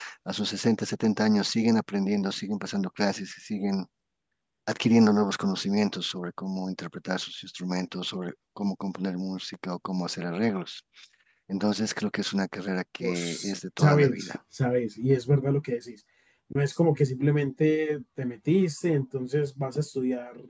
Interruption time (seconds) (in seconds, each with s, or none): 13.0 s